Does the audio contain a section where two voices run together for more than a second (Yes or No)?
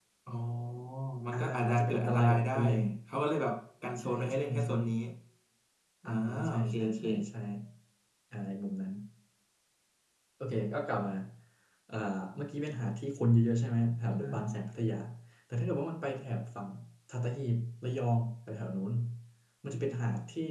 Yes